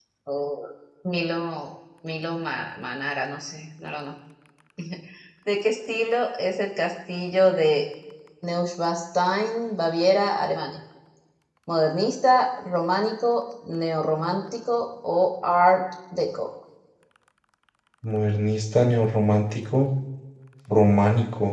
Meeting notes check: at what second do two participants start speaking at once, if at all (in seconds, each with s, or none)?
none